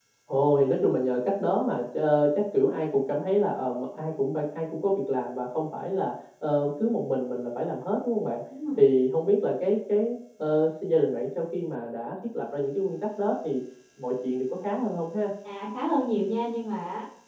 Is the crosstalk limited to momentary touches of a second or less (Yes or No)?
Yes